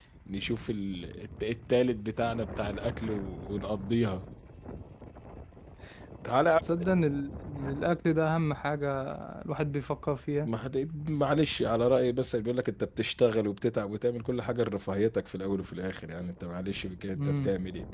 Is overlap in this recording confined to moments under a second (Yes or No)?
Yes